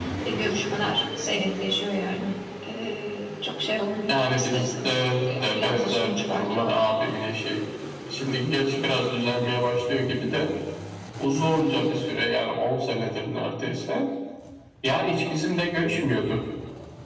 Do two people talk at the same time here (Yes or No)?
Yes